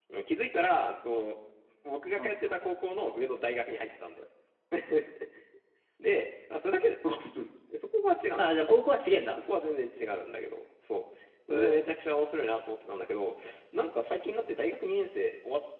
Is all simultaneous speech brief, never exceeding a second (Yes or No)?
Yes